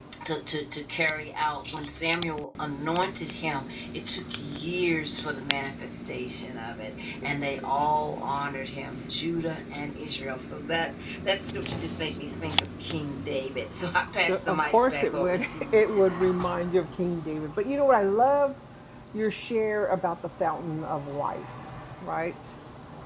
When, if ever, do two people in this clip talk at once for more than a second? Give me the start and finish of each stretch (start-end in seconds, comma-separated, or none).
14.3-16.3